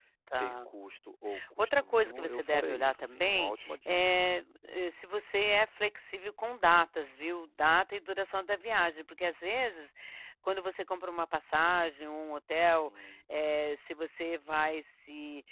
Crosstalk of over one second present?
Yes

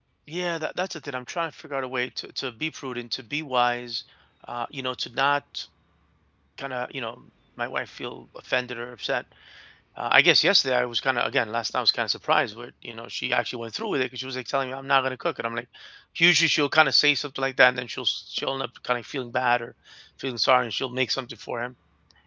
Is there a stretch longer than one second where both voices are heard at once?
No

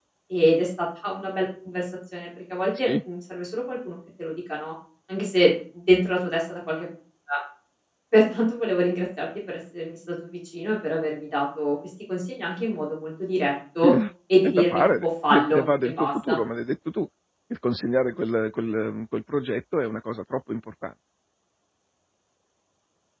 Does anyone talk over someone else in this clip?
Yes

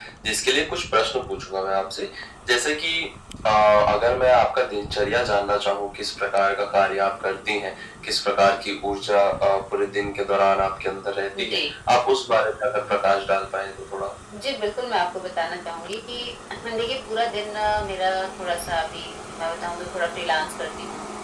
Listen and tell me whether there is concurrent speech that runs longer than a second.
No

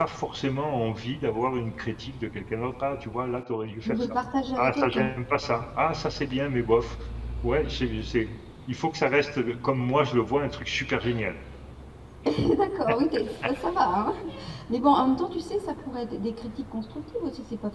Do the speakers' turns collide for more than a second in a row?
No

